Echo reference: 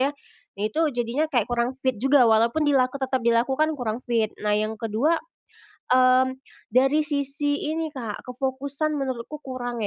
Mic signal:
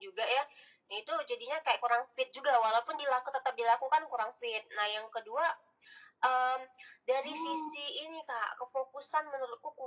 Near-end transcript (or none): Oh.